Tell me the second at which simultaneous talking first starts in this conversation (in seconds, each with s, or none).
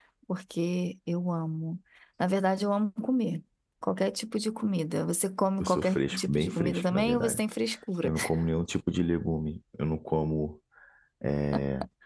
5.6 s